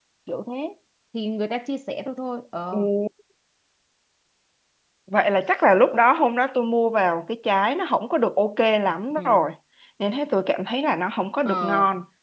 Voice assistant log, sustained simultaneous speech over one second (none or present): none